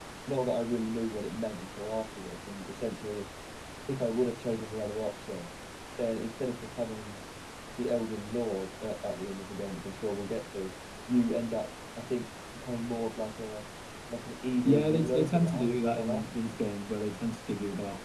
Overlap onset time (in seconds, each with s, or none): 14.6 s